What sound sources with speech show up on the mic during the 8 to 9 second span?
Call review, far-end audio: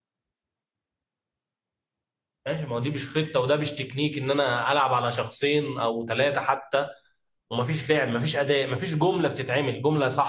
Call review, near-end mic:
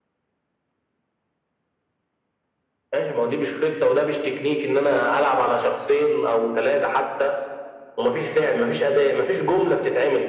echo only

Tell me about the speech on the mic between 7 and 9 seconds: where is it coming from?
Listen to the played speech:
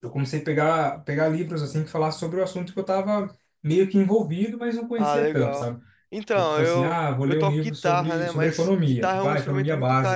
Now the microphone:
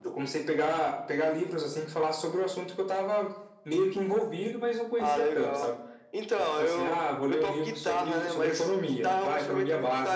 echo only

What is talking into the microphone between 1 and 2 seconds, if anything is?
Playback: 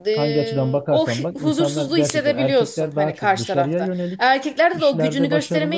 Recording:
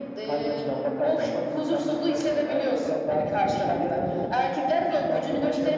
echo only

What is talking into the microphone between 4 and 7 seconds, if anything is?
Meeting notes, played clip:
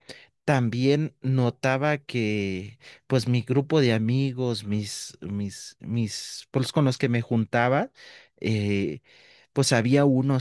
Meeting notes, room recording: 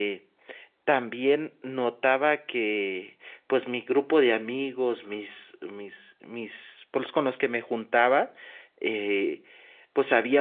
echo only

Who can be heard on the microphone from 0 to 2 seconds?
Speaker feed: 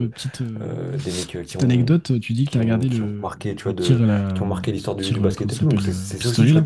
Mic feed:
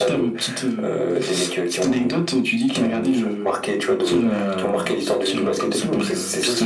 echo only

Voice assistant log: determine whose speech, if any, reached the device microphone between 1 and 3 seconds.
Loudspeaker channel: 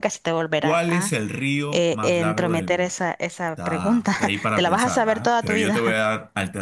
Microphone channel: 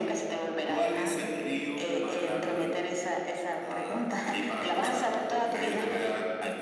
echo only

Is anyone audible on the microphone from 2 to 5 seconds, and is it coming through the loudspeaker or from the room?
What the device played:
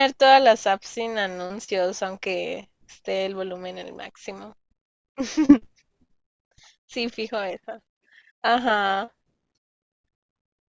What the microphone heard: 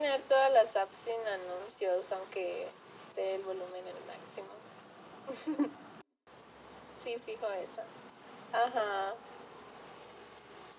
echo only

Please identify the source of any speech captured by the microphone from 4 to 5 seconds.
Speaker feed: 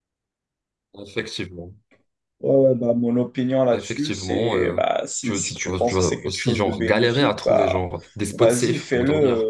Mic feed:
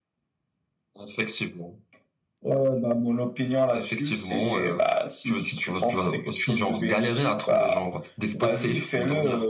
echo only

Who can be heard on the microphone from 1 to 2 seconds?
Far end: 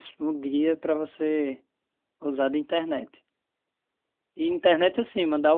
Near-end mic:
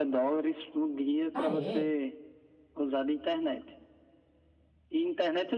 both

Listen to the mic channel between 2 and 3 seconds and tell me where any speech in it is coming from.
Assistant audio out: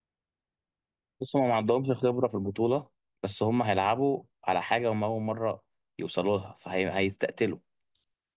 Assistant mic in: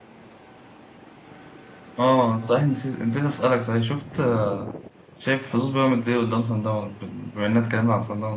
user only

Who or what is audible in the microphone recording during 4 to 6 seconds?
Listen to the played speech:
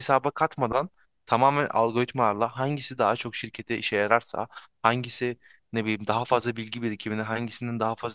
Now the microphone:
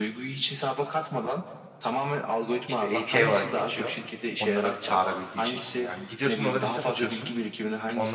both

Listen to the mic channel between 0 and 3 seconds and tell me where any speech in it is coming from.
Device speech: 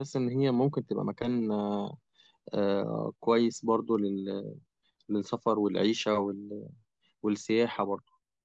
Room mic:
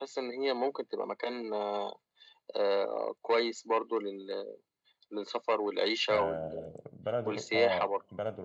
echo only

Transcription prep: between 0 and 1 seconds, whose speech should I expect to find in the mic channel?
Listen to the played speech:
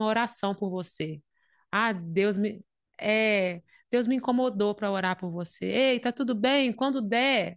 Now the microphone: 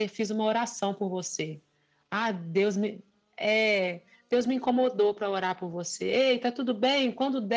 echo only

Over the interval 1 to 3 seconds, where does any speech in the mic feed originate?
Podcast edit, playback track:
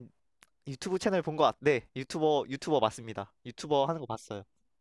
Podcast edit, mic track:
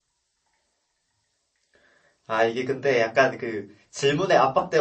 user only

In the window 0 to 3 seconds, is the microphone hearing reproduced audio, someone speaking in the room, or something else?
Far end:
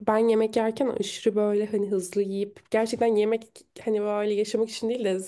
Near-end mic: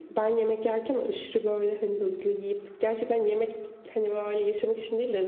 echo only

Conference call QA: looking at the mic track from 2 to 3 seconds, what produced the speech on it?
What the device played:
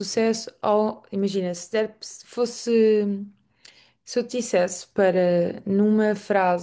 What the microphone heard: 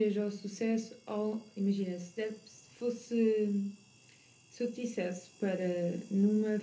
echo only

